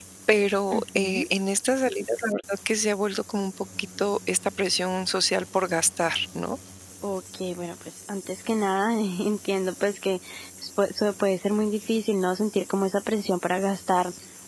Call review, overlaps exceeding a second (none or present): none